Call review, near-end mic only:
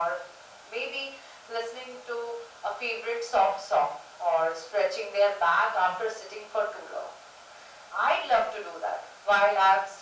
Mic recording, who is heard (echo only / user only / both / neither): echo only